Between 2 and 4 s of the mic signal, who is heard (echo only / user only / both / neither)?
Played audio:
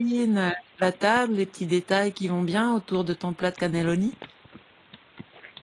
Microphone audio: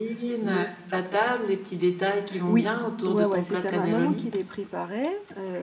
both